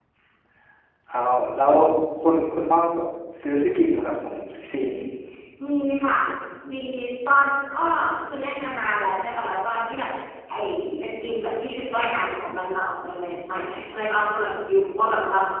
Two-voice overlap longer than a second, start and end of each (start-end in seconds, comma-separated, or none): none